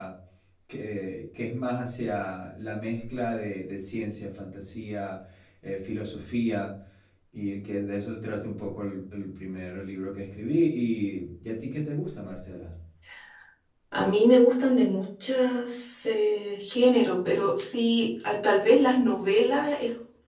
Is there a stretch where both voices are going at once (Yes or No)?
No